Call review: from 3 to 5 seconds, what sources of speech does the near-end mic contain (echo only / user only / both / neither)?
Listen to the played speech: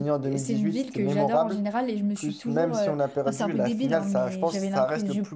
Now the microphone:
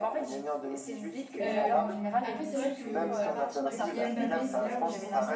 both